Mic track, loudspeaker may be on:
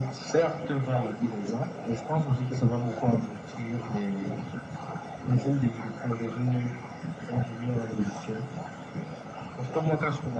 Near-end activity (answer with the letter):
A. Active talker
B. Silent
B